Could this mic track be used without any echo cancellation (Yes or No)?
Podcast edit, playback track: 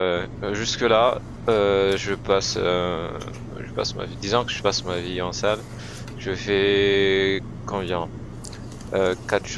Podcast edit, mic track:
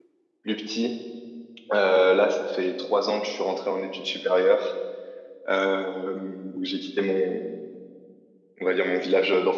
Yes